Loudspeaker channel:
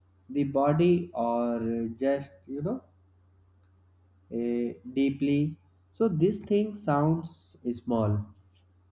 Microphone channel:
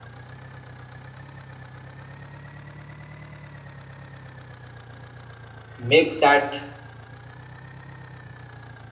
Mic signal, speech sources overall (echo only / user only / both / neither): user only